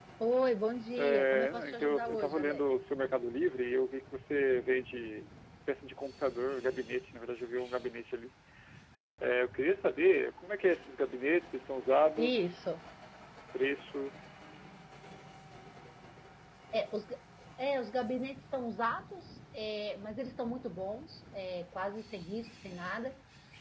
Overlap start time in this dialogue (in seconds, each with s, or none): 1.0 s